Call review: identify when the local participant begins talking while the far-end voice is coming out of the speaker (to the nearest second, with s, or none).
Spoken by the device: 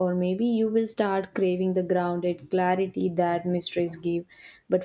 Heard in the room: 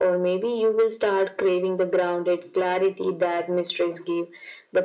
none